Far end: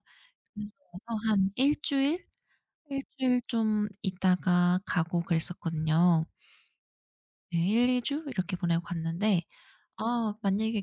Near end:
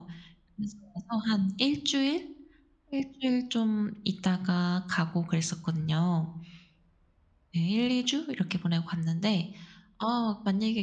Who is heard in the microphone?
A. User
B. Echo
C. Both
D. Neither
B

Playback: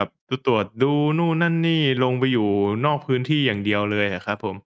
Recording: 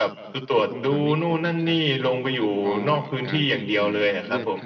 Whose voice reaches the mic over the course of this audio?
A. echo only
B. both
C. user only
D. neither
B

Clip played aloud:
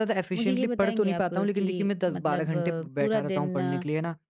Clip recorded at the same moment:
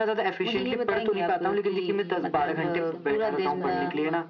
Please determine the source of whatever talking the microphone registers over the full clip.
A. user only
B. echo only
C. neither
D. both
D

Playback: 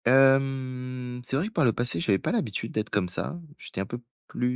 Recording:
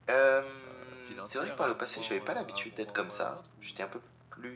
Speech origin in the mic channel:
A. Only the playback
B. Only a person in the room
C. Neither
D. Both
D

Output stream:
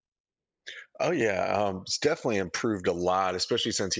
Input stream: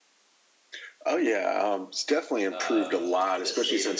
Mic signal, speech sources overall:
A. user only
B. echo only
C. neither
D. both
D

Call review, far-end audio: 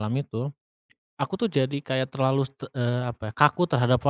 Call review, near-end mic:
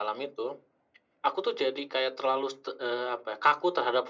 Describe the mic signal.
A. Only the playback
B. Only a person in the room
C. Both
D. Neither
A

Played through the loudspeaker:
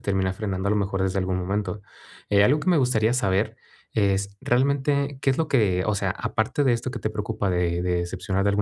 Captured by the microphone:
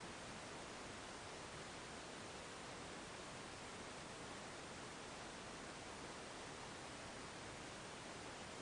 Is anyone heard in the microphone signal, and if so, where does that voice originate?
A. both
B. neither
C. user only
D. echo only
B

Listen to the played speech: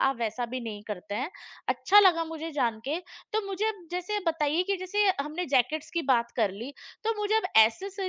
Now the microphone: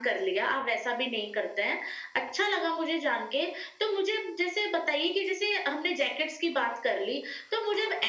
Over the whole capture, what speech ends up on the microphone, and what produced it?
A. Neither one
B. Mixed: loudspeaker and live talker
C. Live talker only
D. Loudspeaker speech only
D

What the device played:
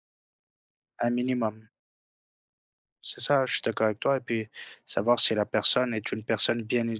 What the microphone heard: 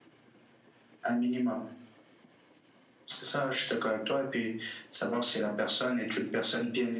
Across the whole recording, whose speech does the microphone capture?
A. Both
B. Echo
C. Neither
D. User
B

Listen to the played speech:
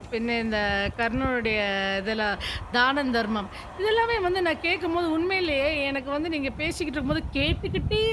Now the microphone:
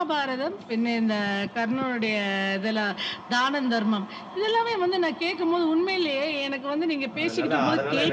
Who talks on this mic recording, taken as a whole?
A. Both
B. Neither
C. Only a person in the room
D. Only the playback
A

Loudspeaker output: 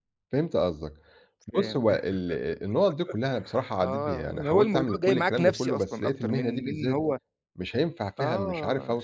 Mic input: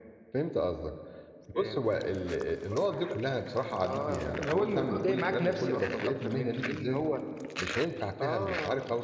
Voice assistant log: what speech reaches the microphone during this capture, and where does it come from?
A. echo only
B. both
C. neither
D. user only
A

